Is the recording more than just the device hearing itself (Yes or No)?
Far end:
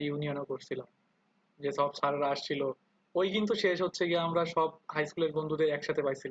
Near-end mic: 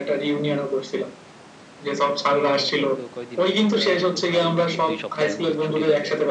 Yes